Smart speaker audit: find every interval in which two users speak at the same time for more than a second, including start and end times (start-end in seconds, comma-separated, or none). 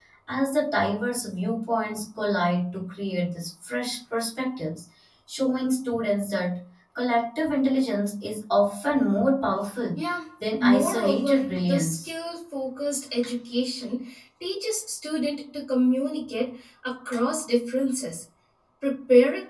10.6-12.1